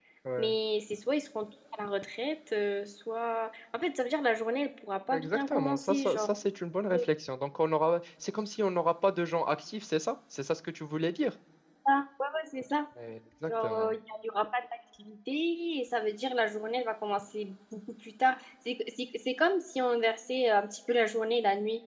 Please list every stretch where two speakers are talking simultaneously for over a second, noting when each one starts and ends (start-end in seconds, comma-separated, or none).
5.1-6.4